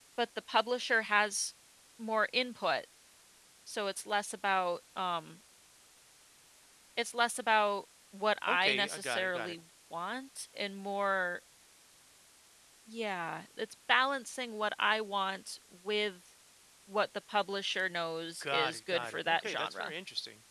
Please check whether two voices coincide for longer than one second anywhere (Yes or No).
Yes